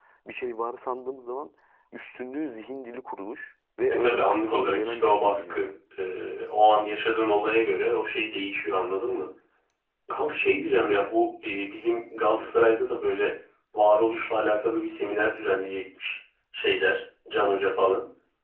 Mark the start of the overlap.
3.9 s

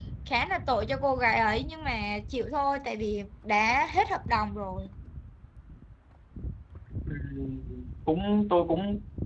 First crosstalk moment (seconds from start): none

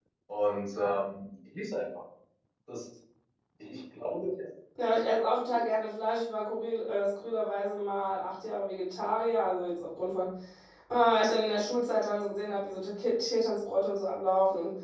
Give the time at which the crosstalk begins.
none

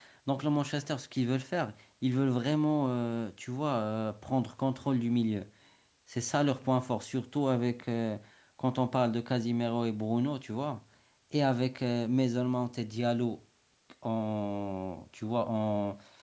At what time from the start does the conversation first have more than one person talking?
none

